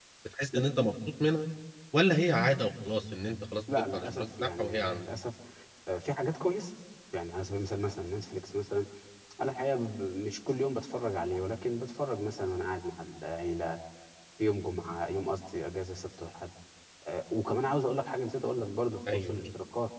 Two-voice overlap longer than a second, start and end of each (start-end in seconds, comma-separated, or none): 3.8-5.0